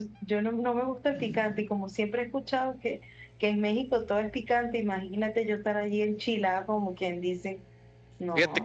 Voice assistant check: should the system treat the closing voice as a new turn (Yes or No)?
Yes